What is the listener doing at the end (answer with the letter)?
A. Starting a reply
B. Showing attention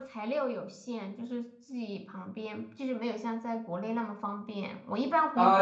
A